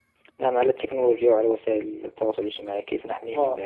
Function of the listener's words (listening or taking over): taking over